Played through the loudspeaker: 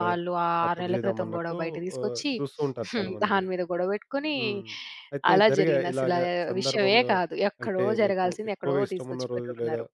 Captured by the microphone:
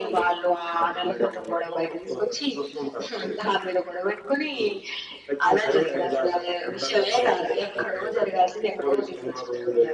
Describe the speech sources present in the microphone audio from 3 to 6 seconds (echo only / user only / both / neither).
echo only